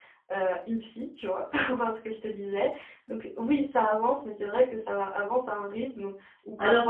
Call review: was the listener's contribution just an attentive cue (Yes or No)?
Yes